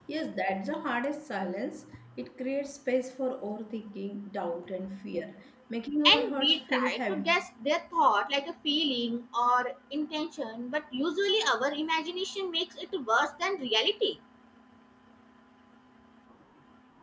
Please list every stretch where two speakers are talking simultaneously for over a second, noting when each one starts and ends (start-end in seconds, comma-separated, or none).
6.0-7.4